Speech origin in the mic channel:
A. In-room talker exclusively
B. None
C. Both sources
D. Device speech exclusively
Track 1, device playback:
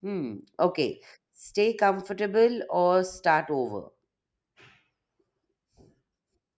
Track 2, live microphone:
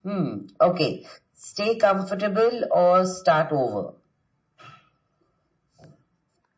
D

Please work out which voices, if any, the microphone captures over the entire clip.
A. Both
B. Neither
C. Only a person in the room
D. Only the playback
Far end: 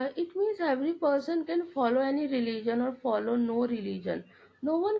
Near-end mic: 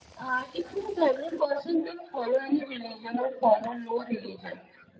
D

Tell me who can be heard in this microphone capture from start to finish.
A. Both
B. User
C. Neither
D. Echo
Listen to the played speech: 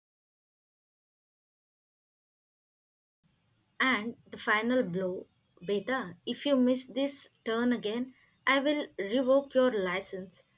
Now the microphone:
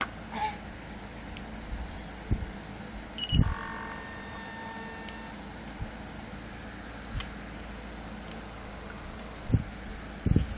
C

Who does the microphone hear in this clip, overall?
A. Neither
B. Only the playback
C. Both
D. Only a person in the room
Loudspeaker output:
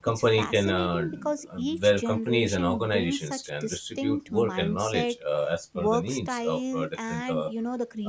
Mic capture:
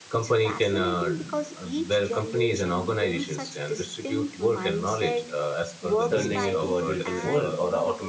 C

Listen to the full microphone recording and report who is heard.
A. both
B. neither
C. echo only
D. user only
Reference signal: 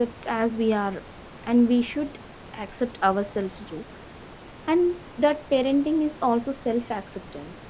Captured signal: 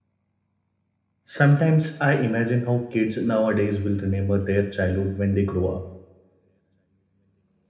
D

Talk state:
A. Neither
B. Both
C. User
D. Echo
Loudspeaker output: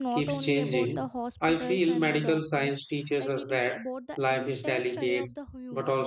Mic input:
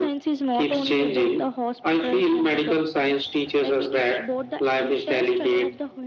D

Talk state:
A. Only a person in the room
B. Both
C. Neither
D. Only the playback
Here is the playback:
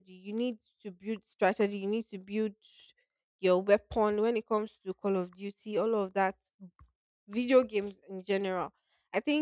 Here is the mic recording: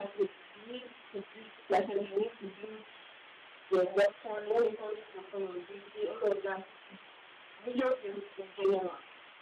D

